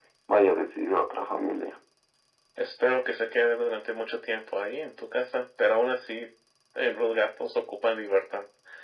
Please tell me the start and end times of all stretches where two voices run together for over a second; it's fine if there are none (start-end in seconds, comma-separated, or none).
none